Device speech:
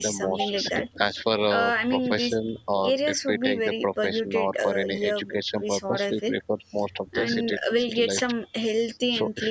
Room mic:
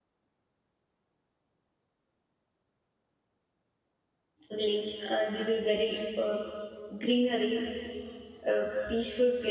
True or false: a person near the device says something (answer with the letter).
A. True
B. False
A